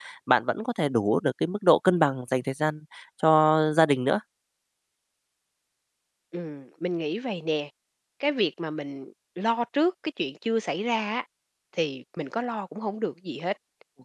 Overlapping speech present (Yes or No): No